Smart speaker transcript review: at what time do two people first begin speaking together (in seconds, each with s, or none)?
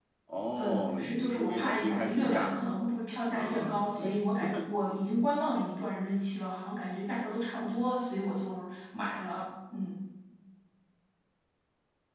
0.6 s